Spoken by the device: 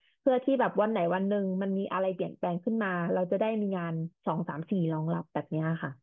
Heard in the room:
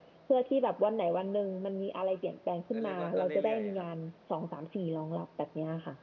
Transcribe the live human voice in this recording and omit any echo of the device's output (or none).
ก็เรียกว่าก็เรื่อยๆครับ